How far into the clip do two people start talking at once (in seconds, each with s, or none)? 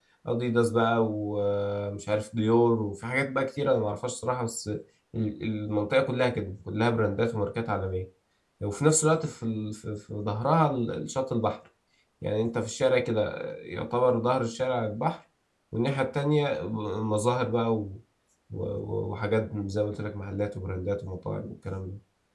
none